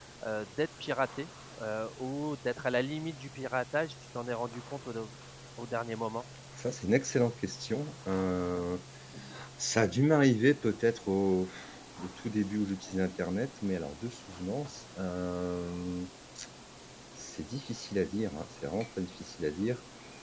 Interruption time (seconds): none

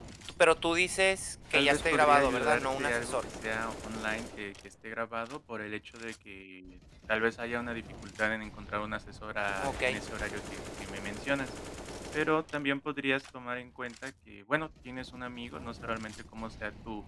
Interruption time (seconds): 1.5 s

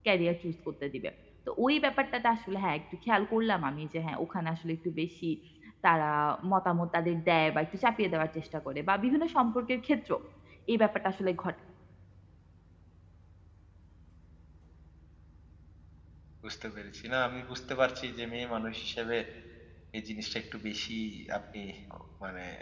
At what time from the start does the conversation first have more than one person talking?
none

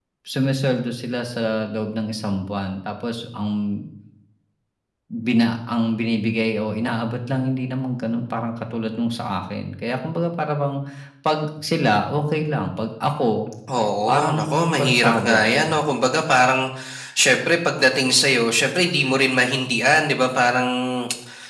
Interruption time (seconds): 14.1 s

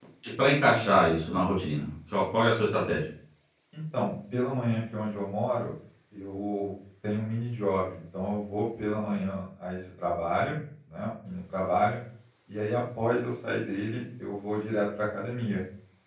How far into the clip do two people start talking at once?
none

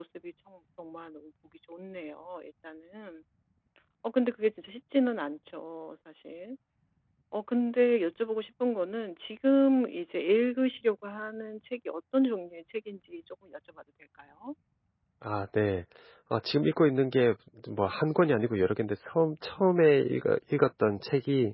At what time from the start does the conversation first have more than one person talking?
none

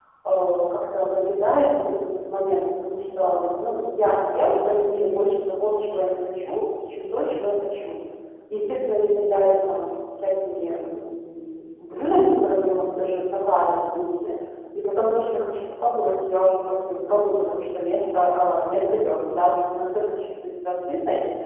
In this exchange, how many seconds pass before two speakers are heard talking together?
none

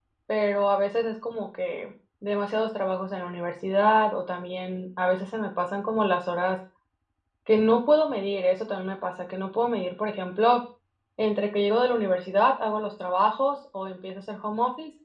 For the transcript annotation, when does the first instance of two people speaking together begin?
none

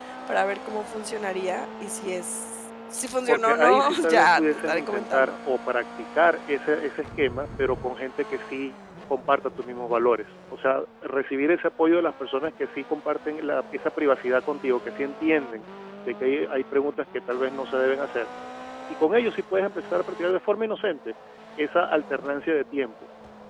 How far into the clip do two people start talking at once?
3.3 s

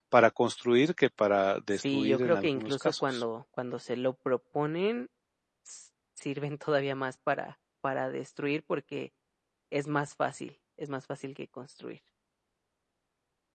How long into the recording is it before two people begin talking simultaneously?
1.7 s

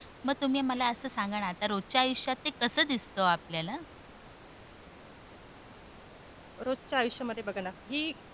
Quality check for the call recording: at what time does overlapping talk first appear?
none

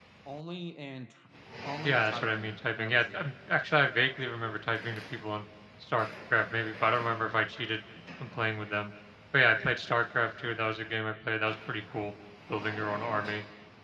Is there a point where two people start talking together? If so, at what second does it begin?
1.8 s

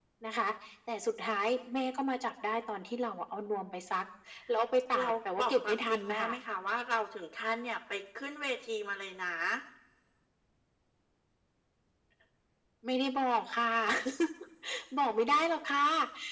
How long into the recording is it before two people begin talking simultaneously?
5.0 s

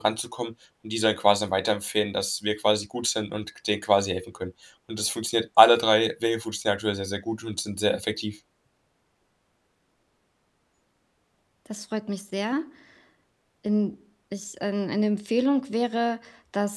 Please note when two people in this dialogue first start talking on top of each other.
none

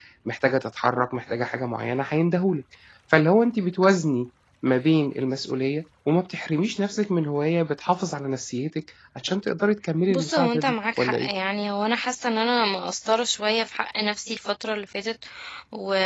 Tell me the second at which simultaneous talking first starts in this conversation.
10.1 s

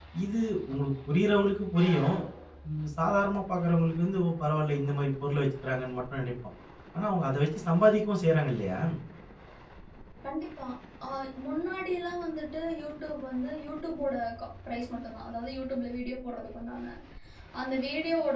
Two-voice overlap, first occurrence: none

